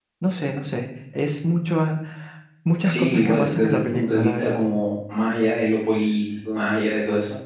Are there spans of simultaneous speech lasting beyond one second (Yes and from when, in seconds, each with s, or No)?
Yes, from 2.8 s